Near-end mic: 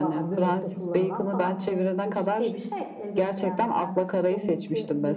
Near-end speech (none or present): present